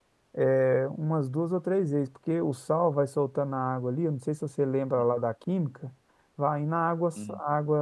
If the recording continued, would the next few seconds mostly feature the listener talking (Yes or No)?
No